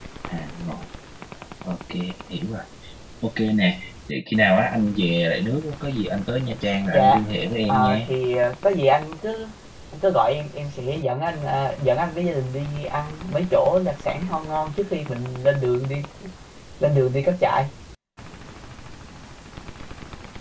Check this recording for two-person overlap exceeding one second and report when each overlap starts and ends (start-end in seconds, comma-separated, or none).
none